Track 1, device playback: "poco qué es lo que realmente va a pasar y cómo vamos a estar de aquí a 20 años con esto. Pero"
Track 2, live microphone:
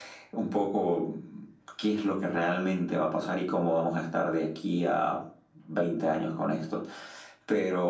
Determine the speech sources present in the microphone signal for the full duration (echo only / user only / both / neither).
echo only